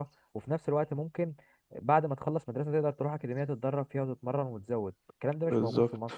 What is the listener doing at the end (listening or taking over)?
taking over